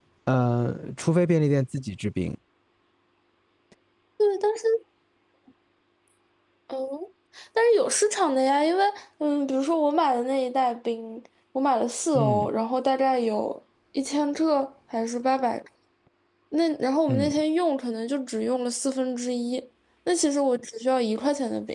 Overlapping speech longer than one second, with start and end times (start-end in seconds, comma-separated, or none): none